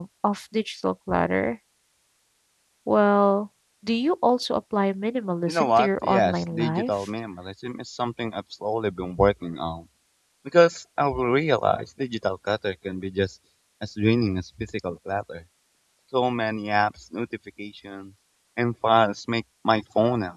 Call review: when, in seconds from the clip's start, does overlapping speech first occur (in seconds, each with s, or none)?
5.5 s